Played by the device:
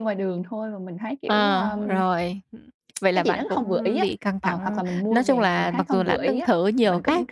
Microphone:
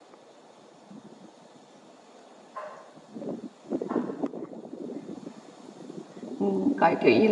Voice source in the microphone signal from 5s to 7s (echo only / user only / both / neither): user only